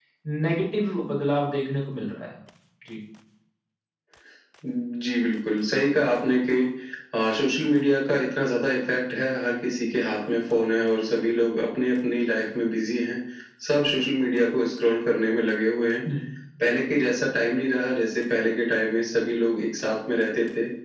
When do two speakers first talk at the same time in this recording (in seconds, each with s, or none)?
none